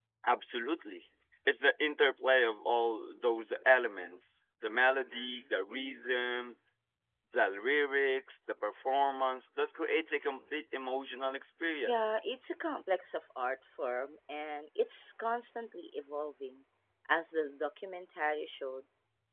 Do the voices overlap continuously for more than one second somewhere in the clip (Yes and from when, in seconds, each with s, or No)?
No